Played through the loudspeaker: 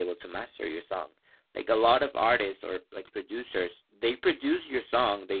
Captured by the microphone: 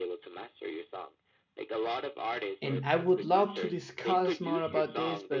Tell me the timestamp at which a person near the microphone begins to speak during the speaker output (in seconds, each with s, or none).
2.6 s